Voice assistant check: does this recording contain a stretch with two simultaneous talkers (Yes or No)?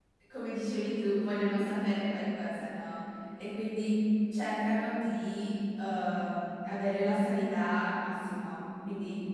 No